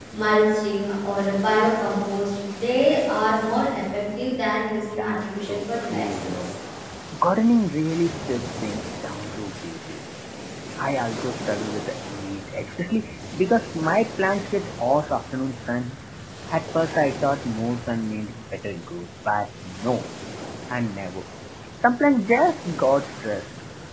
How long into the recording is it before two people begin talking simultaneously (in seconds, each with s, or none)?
5.0 s